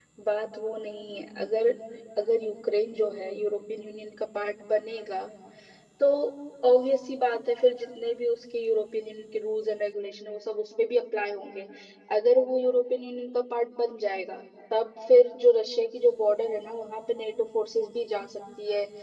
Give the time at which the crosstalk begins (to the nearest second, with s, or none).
none